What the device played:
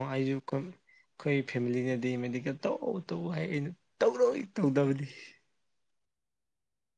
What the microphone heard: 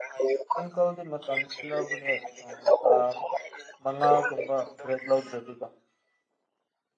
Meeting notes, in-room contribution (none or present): present